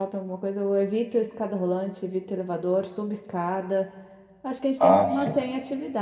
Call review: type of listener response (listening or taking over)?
listening